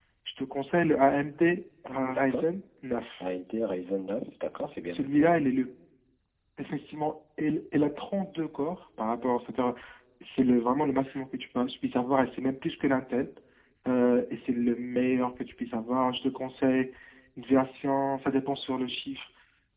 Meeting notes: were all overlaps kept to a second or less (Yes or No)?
Yes